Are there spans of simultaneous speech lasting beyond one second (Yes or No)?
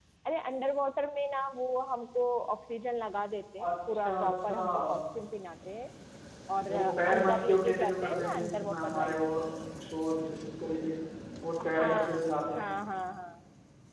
Yes